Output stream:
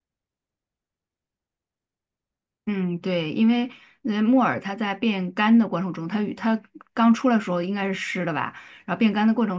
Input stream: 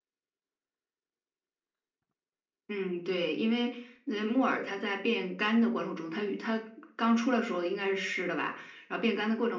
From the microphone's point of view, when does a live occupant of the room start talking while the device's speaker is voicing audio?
none

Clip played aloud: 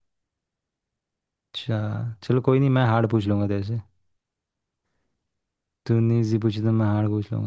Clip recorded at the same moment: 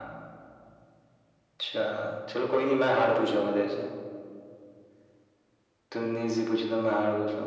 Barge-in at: none

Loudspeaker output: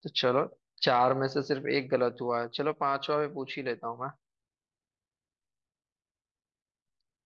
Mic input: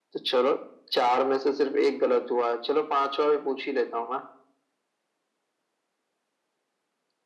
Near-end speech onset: none

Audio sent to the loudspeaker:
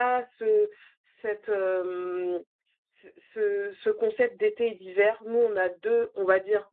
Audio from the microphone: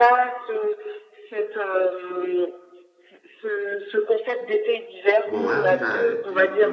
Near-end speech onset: 5.2 s

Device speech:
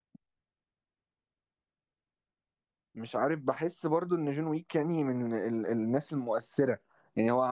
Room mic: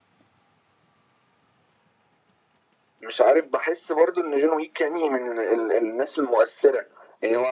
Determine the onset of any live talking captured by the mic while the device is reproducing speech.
none

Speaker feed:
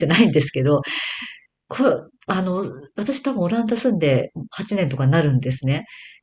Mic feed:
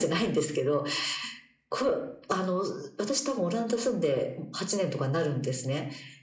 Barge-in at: none

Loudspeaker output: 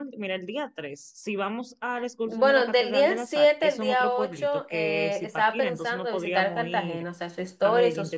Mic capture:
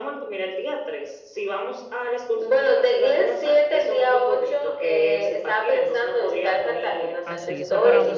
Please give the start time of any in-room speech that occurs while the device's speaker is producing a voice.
7.2 s

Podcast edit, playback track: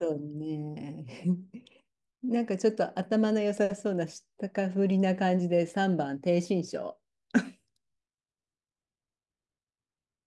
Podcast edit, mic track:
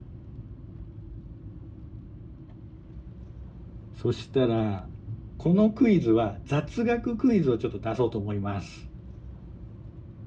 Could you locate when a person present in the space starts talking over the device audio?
3.9 s

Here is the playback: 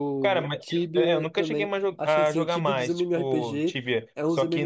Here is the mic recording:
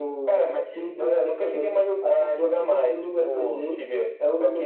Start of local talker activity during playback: none

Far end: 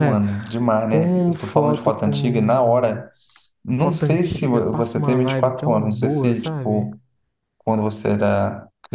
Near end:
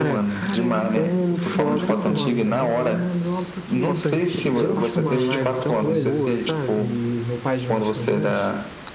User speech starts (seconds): 0.4 s

